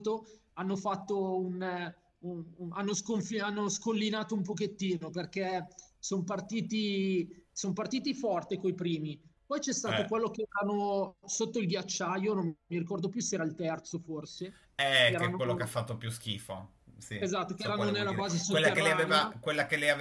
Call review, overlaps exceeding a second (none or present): present